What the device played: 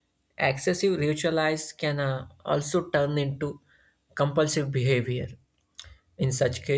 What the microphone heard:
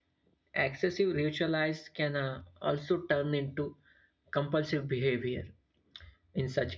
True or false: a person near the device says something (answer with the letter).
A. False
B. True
A